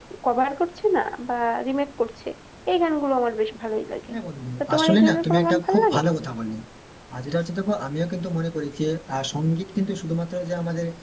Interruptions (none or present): present